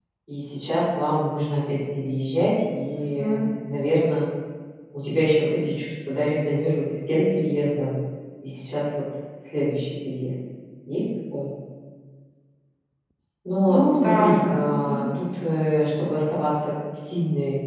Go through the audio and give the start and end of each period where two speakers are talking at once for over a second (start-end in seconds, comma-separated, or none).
13.7-15.0